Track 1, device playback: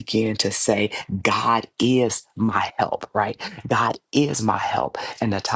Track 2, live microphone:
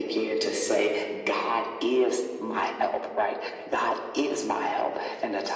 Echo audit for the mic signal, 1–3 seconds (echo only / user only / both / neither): echo only